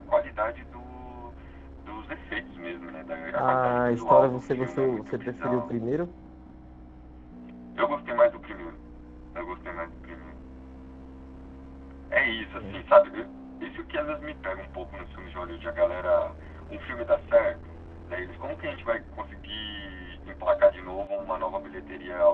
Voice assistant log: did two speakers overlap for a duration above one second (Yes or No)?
Yes